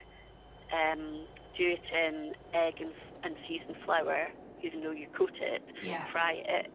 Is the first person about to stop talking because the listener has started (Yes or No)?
No